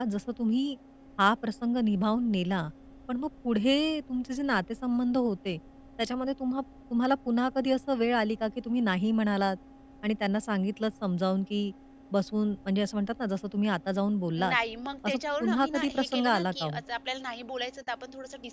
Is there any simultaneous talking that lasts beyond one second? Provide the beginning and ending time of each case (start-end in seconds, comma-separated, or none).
15.1-16.8